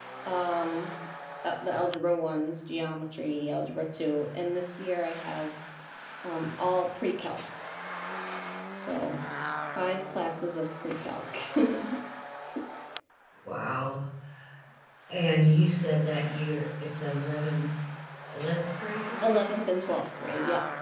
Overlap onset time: none

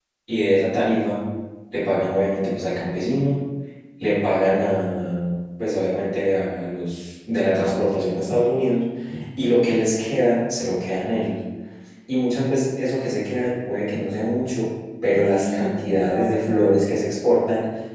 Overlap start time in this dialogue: 15.2 s

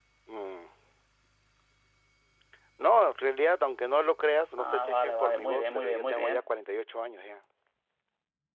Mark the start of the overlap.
4.6 s

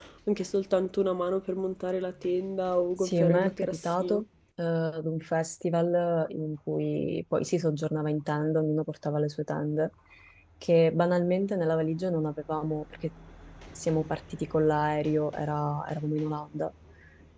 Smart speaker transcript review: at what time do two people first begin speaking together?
3.0 s

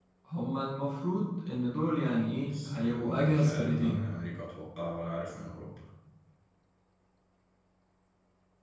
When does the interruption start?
2.4 s

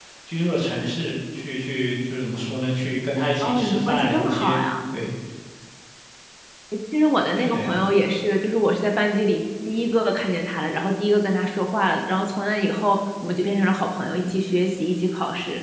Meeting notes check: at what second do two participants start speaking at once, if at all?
3.4 s

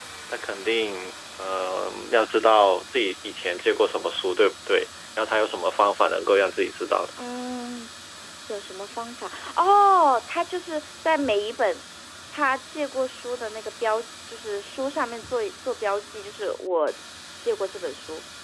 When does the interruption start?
none

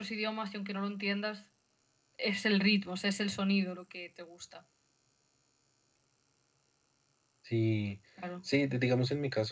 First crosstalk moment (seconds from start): none

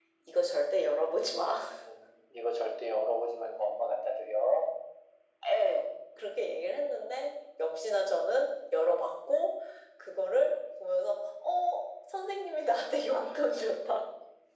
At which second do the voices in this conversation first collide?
none

